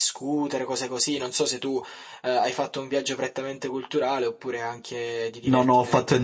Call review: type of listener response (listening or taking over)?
taking over